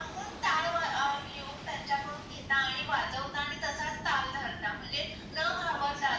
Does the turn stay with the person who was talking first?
Yes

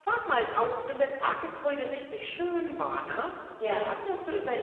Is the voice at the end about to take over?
No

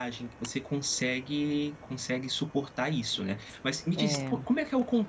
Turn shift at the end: No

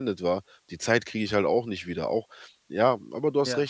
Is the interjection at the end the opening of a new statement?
No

